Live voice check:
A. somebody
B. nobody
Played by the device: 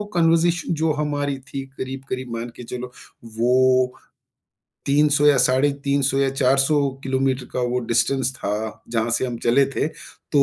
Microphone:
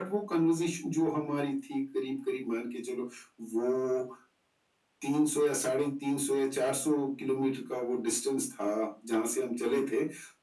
B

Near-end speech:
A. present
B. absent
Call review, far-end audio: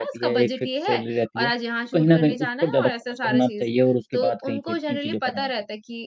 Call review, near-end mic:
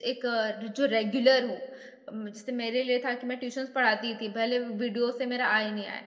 A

